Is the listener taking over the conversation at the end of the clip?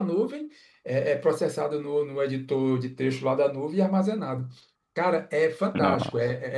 No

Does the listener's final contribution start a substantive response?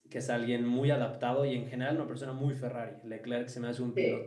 No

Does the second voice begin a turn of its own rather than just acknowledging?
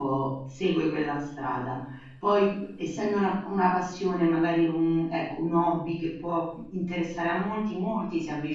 No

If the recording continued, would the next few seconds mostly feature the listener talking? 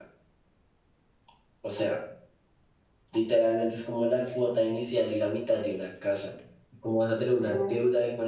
No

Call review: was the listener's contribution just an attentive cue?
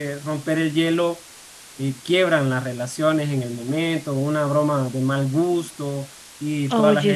Yes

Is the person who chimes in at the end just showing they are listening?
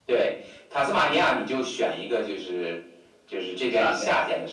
Yes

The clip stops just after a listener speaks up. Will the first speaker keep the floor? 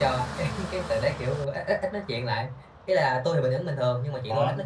Yes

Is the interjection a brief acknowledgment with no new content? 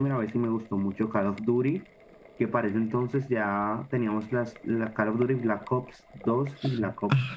No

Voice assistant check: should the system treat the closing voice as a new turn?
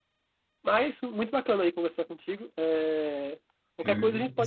No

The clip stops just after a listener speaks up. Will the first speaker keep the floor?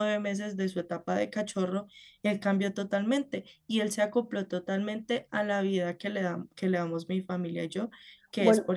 Yes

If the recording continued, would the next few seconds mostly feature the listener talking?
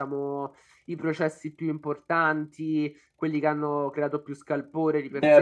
Yes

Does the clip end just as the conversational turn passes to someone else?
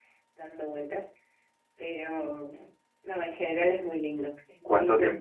Yes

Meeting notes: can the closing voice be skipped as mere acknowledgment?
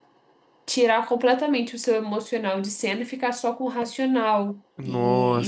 No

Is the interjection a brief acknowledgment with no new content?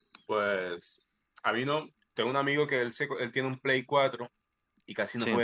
Yes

